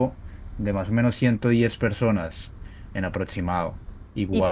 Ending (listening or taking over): listening